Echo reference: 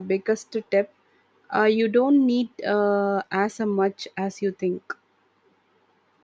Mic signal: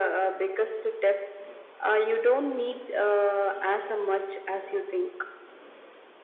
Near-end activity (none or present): none